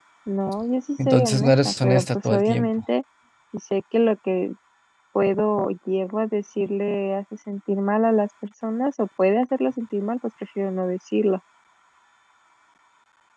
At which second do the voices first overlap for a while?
1.1 s

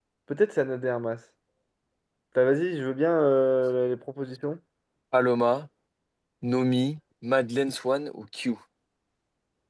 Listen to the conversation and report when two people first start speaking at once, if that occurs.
none

